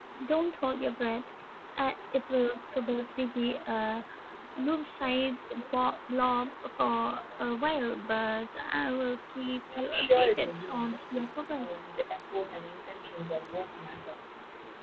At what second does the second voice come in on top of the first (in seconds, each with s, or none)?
9.8 s